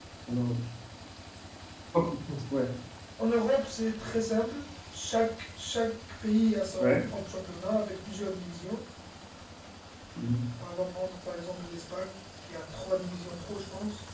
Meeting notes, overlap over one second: none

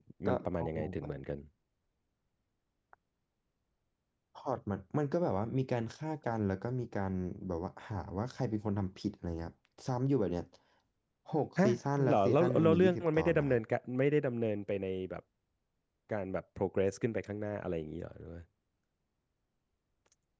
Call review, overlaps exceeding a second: present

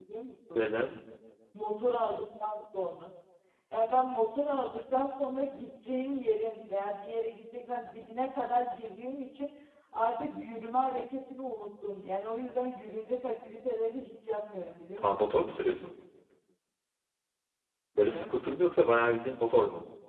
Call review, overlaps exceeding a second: none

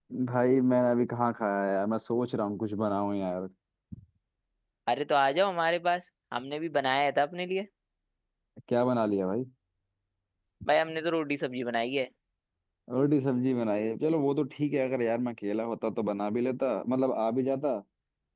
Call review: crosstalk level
none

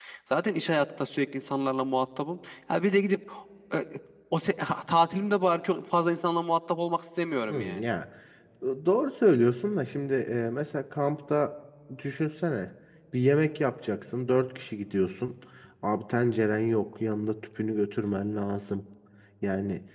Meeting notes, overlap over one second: none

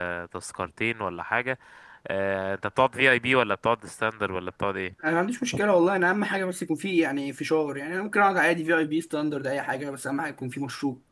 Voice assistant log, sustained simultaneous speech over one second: none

